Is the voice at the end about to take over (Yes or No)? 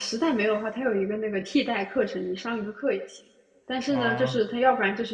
No